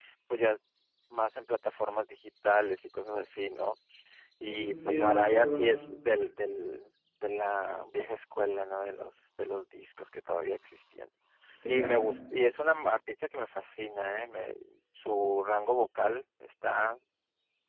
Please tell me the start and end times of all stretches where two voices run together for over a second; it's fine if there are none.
4.4-5.7

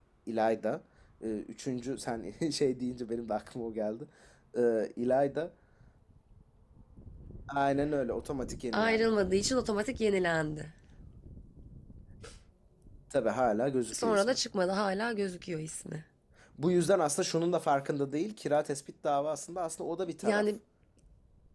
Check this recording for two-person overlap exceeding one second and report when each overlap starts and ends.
none

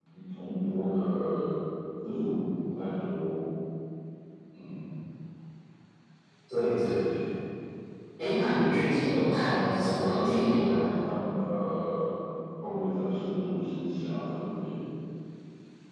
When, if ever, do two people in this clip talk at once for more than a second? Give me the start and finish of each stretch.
9.4-10.8

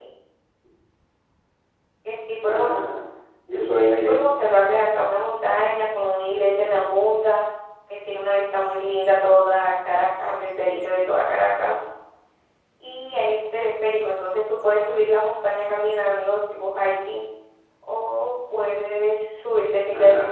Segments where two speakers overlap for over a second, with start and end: none

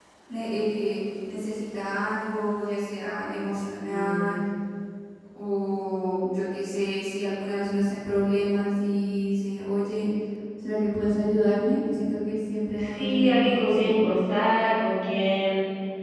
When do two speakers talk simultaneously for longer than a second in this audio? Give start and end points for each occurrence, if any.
12.9-14.1

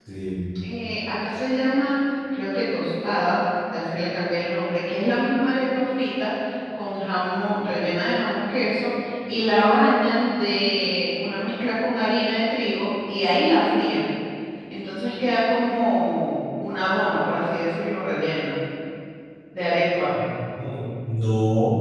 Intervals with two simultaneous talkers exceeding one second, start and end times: none

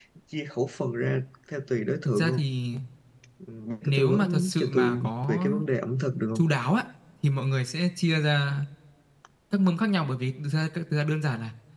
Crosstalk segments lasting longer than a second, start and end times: 3.8-5.5

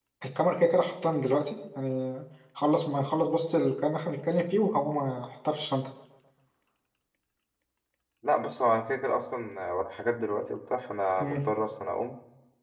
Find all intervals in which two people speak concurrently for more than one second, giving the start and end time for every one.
none

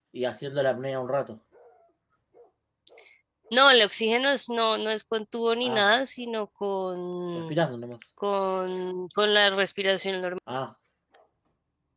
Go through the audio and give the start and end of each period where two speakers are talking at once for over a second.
none

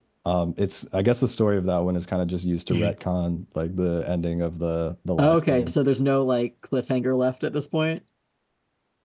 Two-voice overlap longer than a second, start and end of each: none

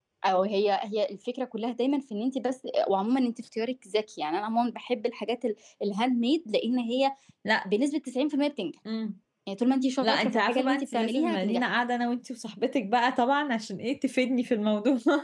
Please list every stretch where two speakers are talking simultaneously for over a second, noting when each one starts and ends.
10.0-11.6

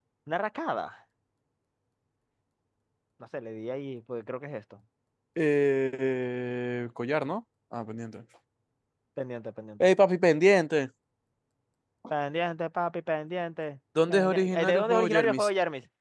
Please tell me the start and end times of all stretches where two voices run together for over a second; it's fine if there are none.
14.1-15.5

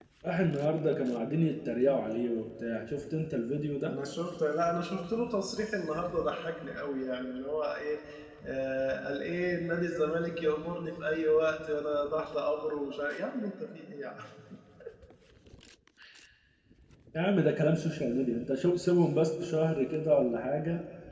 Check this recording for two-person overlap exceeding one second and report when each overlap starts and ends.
none

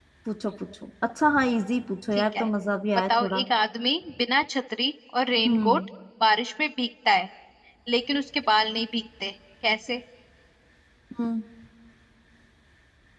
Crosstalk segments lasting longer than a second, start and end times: none

